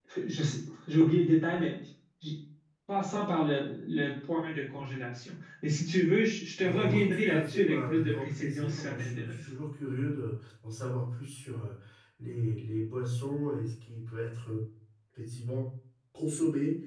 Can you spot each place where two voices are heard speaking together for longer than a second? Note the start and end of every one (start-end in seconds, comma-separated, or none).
6.6-9.4